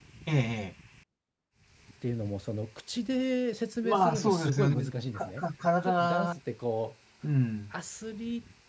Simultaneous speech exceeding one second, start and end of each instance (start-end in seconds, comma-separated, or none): 3.8-5.4